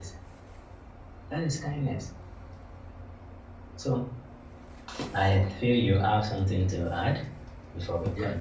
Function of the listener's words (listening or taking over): taking over